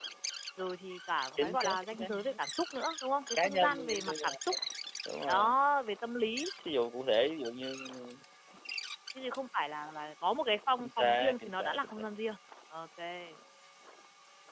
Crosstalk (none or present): present